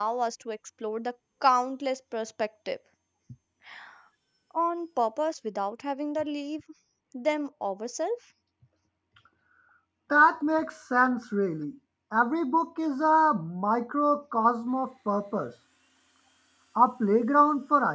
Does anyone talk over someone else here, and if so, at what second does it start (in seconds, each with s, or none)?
none